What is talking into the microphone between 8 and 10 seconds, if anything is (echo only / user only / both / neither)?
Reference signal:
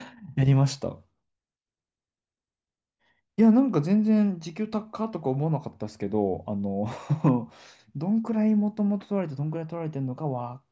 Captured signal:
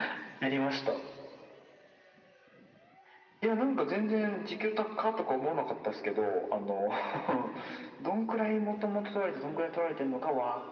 echo only